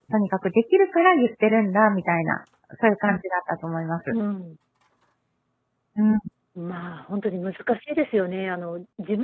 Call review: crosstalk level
none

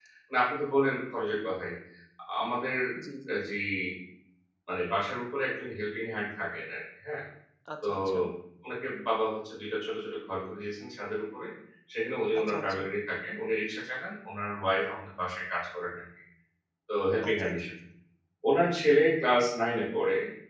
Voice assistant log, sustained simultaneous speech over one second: none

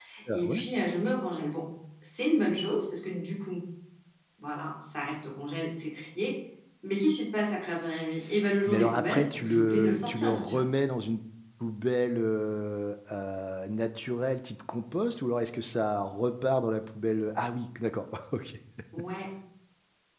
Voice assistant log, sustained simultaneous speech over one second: present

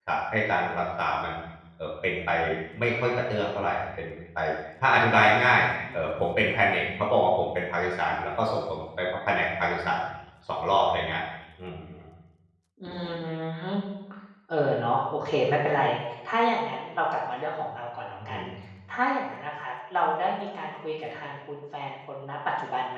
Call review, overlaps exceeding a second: none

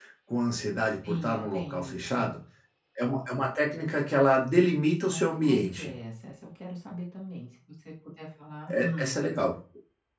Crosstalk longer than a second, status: present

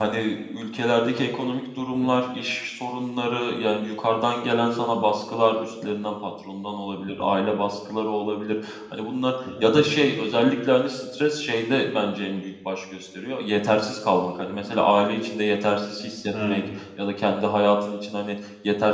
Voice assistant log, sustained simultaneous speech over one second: none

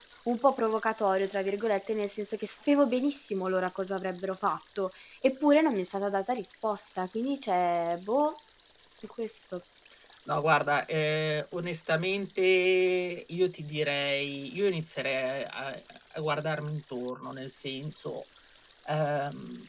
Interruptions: none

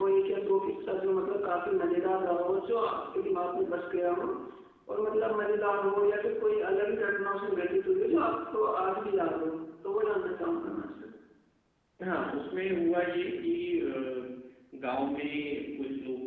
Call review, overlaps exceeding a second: none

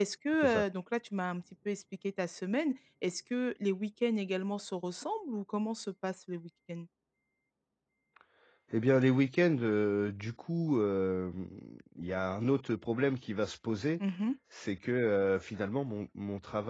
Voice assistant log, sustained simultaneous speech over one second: none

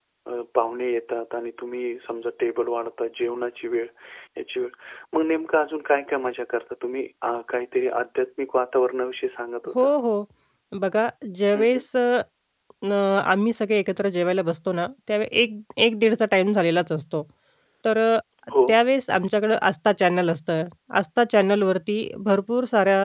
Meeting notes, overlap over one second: none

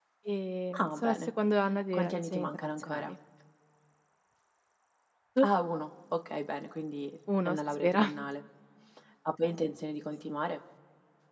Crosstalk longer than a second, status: present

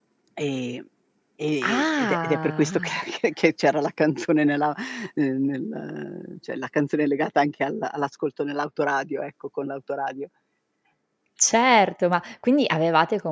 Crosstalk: present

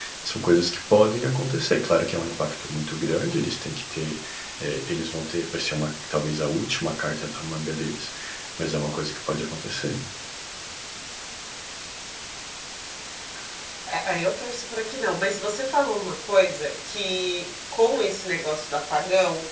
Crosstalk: none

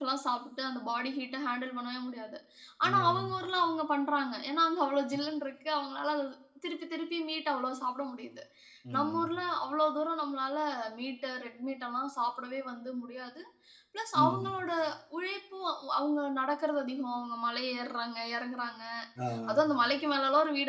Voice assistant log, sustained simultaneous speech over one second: none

